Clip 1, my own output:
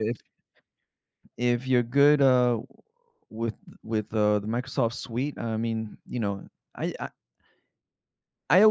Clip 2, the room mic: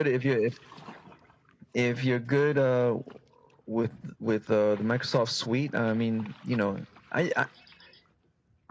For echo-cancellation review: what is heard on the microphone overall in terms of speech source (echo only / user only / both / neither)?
echo only